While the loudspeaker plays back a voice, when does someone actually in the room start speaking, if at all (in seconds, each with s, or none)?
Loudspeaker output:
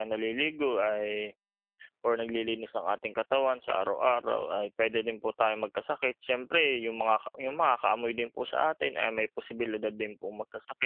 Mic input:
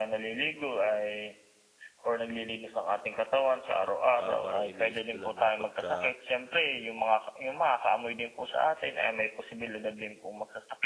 4.2 s